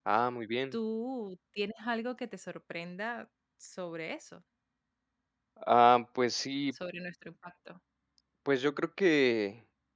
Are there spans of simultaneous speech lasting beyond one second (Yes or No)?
No